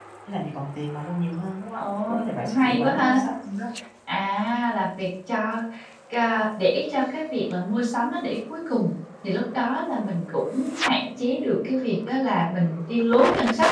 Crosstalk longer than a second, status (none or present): present